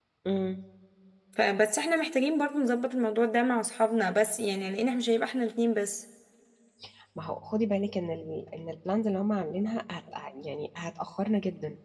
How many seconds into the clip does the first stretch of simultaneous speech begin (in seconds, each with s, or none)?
none